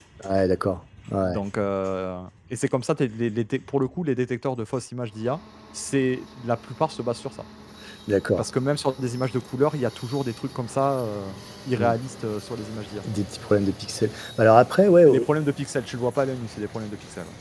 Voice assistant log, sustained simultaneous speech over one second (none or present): none